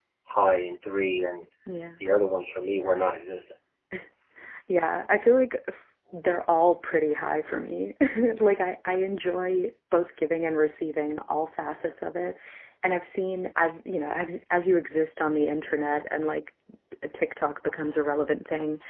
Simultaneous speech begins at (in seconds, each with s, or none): none